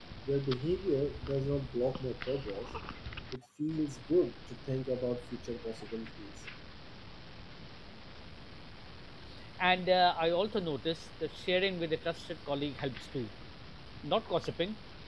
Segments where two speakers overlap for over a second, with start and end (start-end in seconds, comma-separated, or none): none